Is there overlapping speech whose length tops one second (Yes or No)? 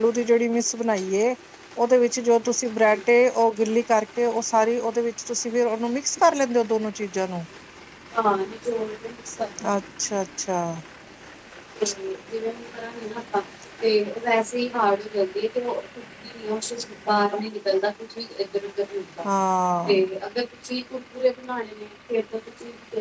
No